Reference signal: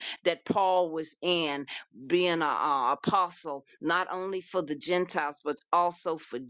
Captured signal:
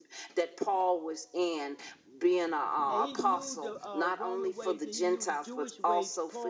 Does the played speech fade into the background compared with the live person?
No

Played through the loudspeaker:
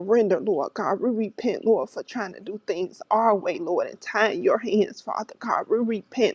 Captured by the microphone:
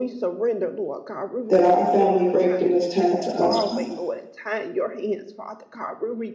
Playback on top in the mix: No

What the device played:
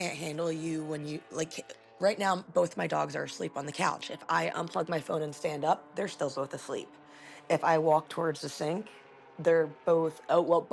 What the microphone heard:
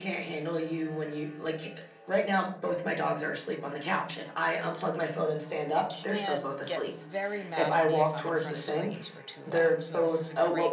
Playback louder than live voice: Yes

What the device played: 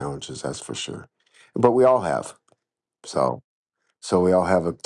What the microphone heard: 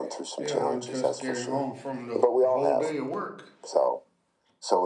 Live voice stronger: No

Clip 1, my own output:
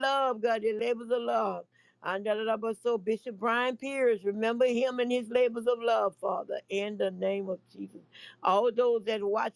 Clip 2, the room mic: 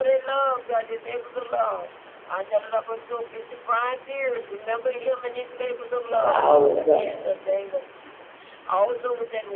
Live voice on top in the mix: Yes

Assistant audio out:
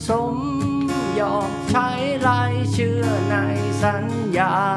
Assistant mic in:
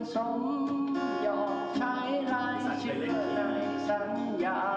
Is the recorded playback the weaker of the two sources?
No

